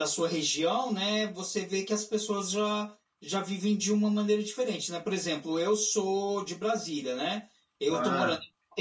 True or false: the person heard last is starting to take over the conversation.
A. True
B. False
B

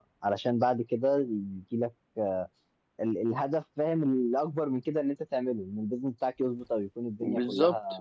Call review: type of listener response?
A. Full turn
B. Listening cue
A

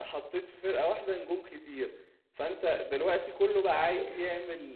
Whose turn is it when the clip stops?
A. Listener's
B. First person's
B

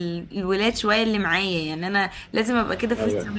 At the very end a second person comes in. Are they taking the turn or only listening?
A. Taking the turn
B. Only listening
B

